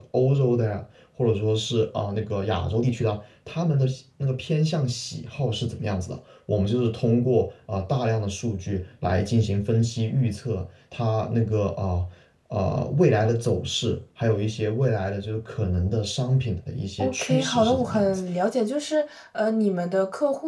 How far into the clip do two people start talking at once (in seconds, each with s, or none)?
17.0 s